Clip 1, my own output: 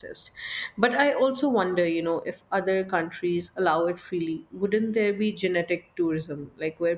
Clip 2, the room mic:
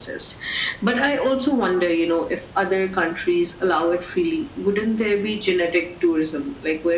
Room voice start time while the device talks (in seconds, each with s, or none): none